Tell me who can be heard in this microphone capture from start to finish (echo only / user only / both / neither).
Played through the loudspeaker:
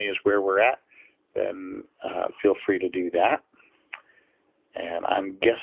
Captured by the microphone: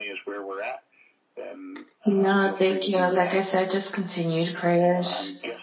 both